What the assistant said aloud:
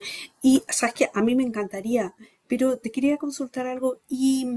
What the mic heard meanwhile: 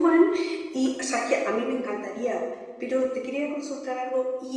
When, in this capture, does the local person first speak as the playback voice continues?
none

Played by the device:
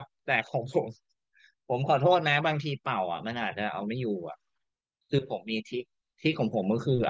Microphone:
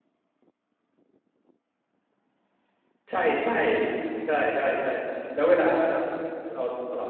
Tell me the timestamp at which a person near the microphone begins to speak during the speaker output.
3 s

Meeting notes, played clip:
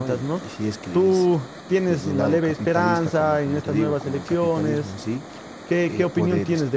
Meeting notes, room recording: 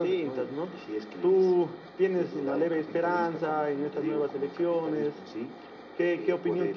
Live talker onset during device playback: none

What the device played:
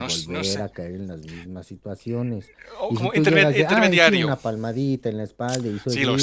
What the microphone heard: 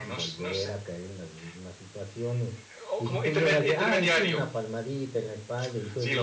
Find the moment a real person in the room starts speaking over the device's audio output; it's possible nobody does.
none

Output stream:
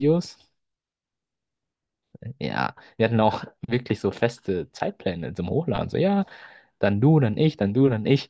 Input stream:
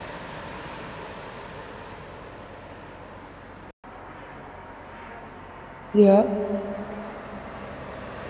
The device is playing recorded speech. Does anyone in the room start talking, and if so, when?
6 s

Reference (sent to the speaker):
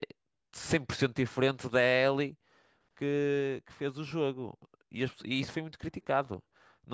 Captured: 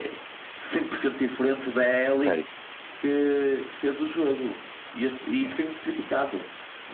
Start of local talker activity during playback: 2 s

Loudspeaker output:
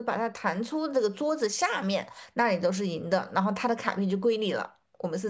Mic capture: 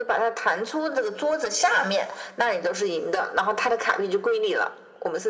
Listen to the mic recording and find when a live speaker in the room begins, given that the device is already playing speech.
none

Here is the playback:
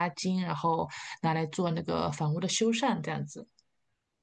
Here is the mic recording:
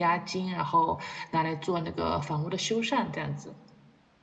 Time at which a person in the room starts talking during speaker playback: none

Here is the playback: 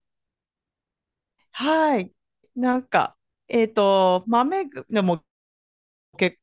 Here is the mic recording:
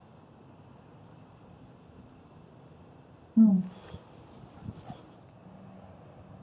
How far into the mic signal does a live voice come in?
3 s

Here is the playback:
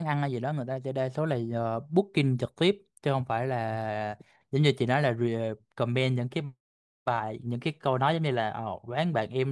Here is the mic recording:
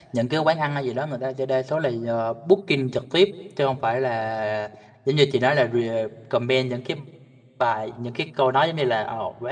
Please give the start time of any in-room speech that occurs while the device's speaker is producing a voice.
none

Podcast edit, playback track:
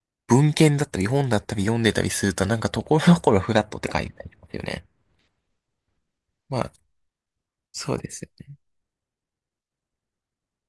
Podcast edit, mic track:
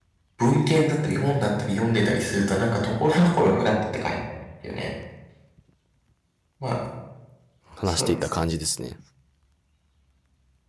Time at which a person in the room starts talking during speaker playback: 8 s

